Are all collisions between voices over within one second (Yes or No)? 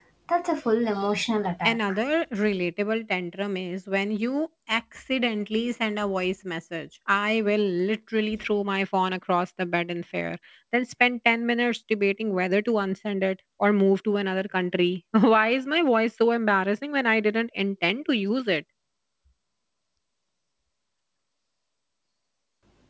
Yes